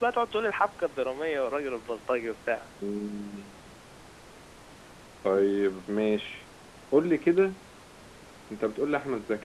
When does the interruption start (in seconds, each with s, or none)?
none